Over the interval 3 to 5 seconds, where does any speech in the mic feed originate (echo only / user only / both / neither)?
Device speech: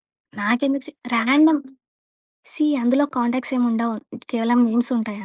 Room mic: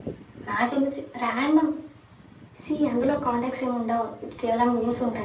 echo only